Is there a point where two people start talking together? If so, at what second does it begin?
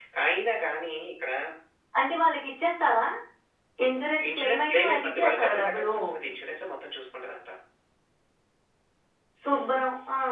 4.3 s

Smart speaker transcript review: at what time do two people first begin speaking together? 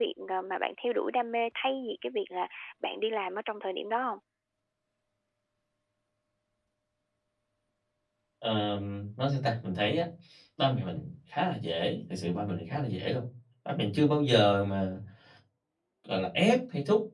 none

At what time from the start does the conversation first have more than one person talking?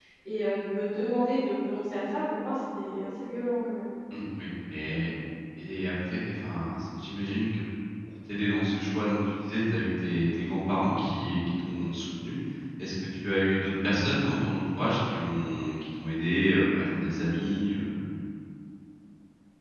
none

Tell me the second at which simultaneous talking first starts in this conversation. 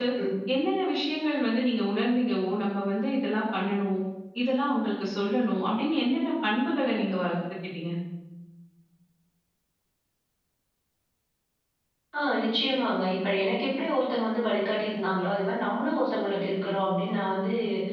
none

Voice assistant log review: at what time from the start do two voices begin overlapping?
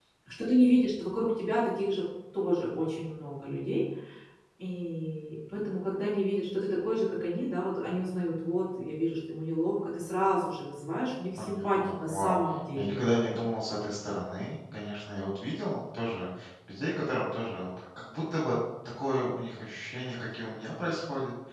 11.3 s

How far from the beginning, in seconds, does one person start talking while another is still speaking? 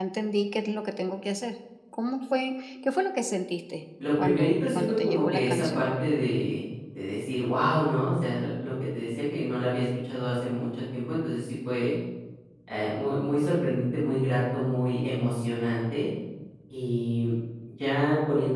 4.0 s

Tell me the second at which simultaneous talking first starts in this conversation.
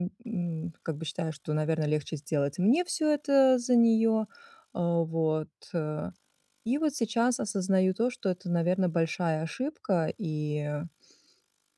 none

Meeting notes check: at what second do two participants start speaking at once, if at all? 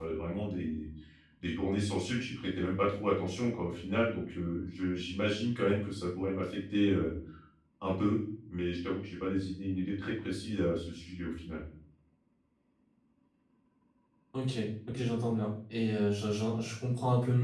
none

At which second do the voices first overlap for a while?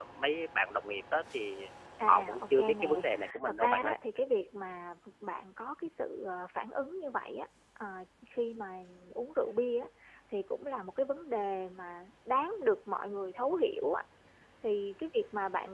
2.0 s

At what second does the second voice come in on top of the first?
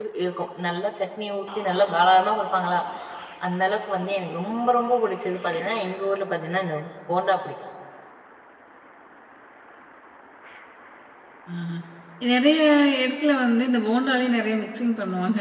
none

